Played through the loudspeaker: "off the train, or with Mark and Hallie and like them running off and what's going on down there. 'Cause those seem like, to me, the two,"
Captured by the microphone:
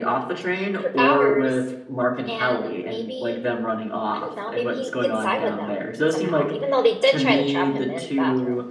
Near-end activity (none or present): present